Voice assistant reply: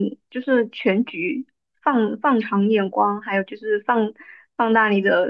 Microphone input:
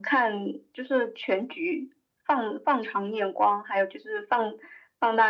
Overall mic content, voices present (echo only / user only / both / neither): echo only